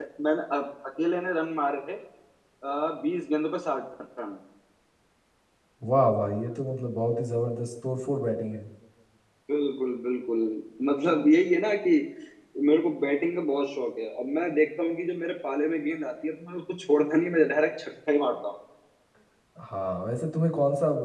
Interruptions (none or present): none